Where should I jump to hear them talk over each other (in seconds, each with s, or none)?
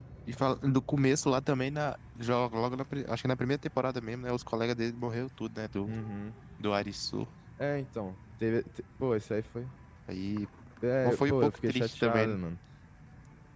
11.0 s